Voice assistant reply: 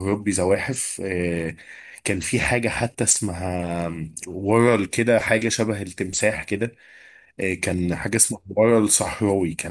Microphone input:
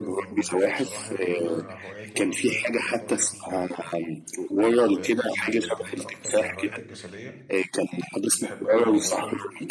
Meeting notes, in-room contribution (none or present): present